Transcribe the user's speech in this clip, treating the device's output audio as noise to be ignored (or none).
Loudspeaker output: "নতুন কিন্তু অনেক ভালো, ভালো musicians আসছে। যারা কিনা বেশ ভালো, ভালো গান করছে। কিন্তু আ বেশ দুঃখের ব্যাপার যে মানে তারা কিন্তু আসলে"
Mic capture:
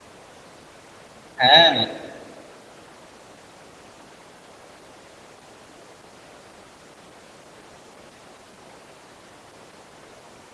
হ্যাঁ।